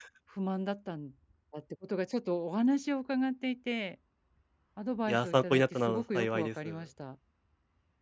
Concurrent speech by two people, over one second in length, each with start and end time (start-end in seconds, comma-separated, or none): 5.1-6.8